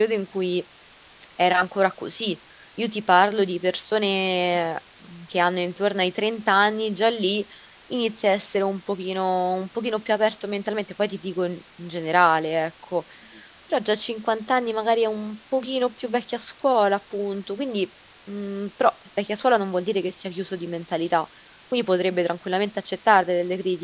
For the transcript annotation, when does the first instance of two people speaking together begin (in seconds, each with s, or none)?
none